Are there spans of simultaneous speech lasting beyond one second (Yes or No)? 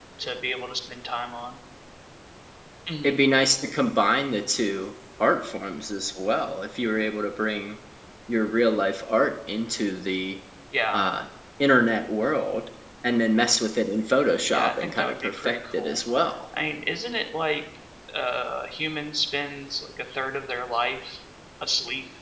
Yes